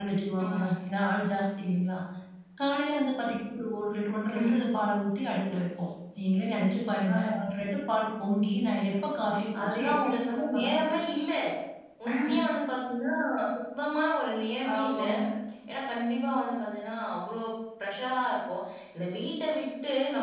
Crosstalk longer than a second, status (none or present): present